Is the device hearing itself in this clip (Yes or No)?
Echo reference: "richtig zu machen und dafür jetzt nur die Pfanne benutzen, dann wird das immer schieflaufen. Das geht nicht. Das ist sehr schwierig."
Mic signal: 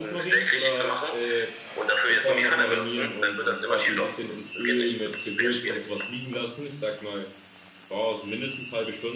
Yes